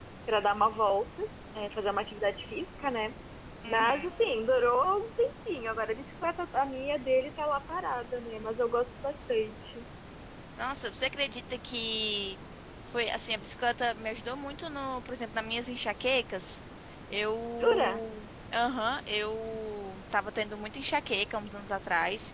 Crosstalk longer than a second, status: none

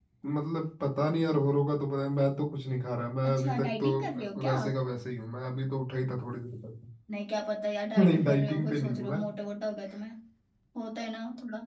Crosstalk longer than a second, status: present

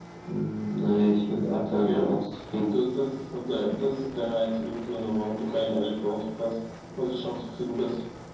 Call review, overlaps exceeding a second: none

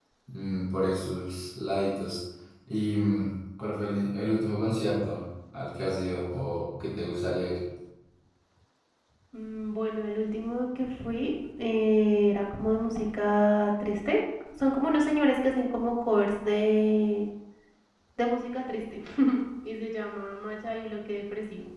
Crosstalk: none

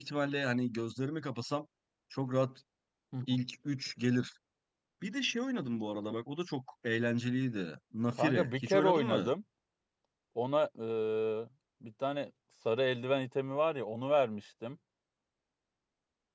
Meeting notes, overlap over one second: present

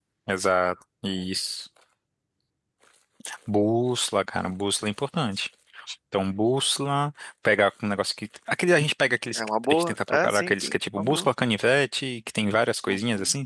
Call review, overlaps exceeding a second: present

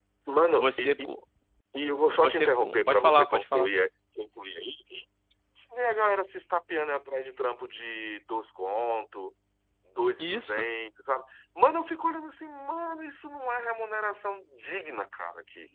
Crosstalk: present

